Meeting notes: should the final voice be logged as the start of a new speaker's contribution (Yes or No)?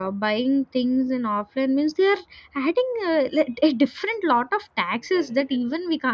No